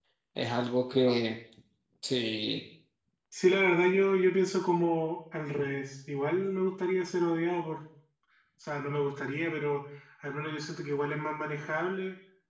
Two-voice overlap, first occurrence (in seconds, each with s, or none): none